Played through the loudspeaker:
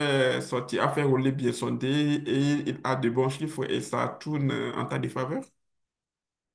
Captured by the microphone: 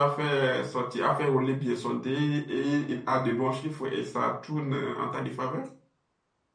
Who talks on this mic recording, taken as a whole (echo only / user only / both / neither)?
echo only